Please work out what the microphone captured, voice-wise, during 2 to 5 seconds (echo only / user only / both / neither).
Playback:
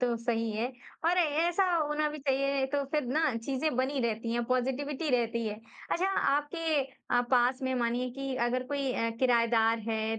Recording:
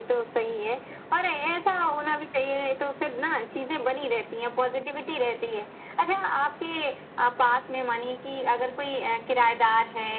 echo only